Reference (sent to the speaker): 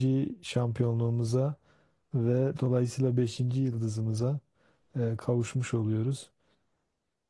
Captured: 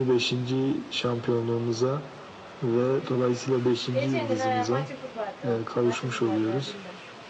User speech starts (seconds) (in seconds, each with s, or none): 3.9 s